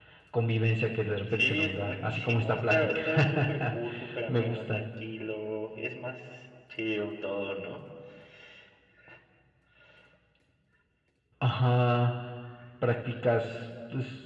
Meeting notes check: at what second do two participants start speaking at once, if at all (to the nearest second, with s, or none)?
1 s